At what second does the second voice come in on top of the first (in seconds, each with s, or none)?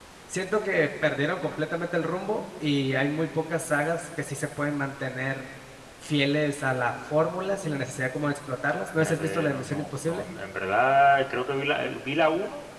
9.0 s